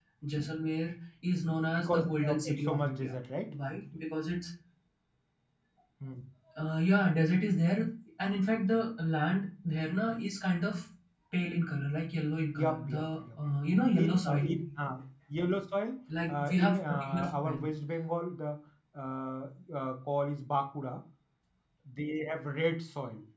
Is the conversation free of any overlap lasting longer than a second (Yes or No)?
No